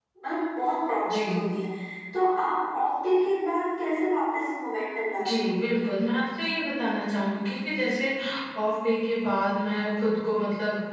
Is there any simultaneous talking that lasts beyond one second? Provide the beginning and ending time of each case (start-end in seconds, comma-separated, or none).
none